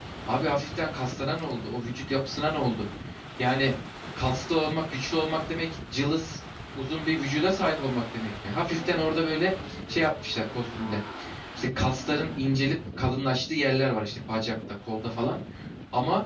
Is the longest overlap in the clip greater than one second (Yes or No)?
No